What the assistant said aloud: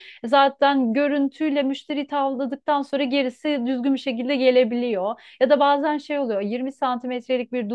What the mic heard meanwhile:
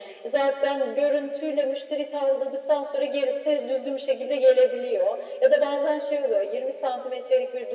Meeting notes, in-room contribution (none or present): none